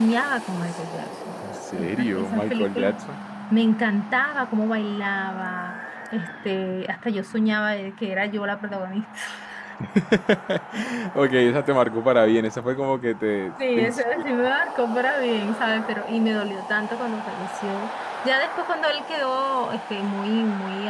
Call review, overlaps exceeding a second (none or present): present